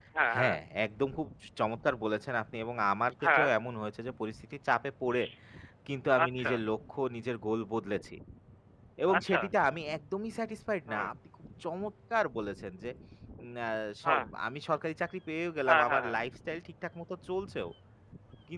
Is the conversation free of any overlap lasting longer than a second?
Yes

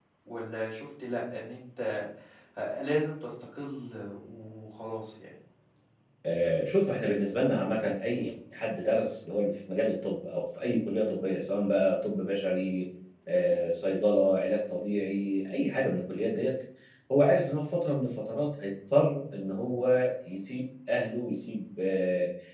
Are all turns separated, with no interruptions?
Yes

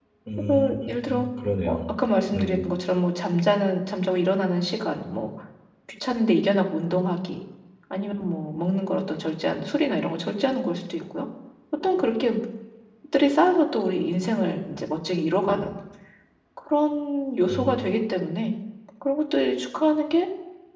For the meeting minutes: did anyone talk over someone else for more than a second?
No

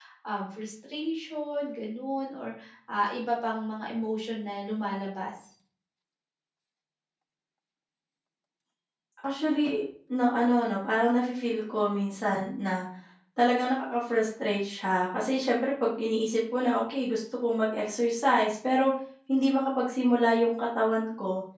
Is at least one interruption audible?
No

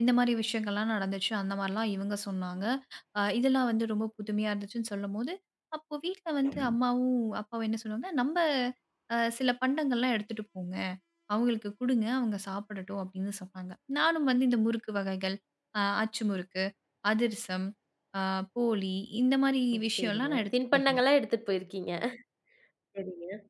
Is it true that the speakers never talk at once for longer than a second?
No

